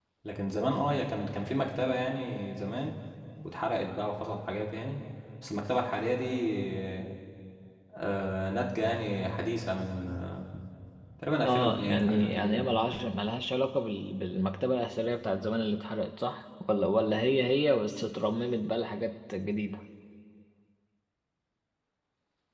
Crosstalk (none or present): present